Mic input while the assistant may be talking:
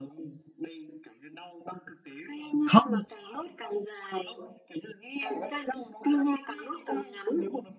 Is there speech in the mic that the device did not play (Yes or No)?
Yes